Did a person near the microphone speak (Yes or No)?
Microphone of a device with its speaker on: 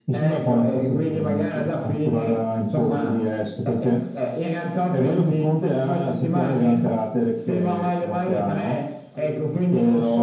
No